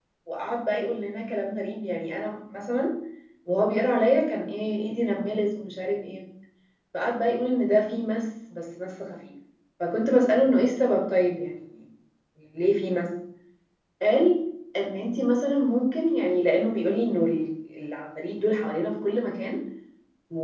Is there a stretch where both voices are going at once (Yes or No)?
No